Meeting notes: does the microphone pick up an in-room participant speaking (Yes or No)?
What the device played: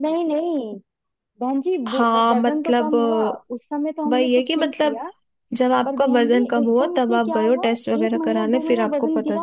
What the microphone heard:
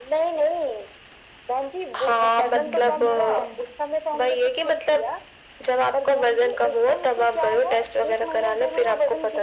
Yes